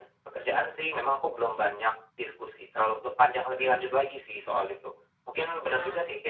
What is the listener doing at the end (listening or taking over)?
listening